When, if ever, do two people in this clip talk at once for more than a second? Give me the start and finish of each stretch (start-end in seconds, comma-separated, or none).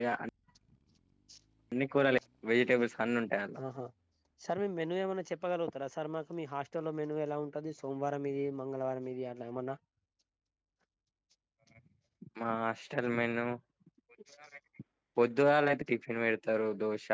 none